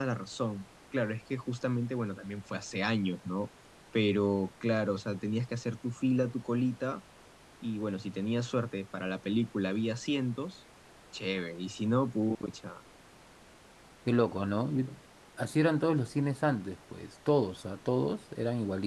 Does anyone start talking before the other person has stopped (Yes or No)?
No